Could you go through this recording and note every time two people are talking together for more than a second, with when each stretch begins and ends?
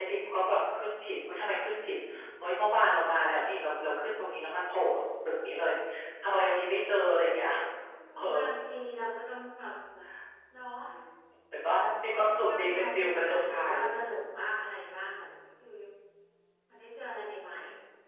12.0-13.8

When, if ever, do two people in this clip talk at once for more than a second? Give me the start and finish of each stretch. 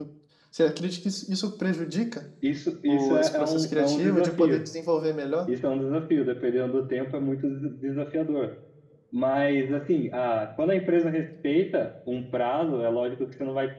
2.9-4.6

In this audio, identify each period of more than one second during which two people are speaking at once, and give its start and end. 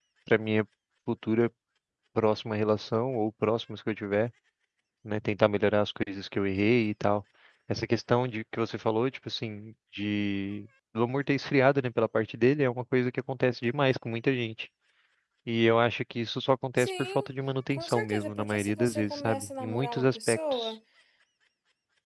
17.7-20.7

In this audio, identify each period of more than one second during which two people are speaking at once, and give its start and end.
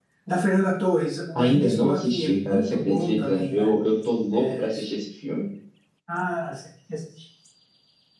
1.4-3.7

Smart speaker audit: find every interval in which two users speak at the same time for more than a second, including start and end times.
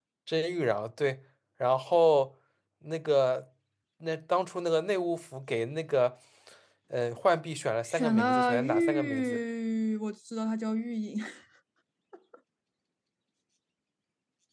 7.9-9.4

